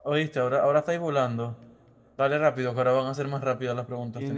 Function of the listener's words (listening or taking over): taking over